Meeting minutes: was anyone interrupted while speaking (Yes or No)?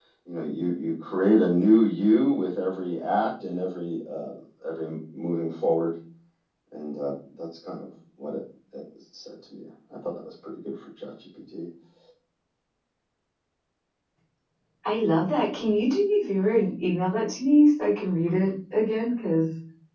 No